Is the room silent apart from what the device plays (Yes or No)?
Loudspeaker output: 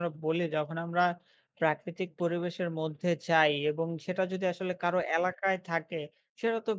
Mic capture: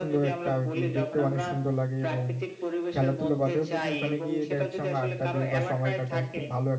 No